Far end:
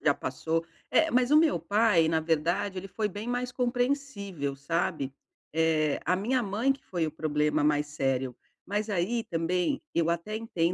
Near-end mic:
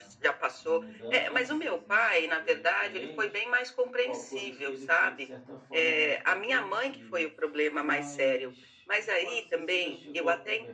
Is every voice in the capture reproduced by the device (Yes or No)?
No